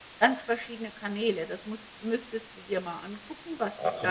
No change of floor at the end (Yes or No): No